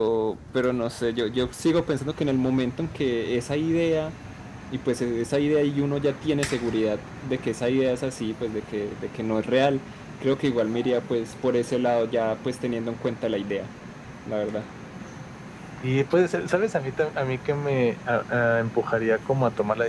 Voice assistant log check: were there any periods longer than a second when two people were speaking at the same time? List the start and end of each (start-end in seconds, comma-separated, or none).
none